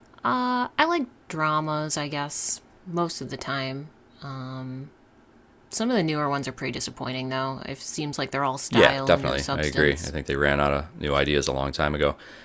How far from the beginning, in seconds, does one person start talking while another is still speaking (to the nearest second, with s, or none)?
9 s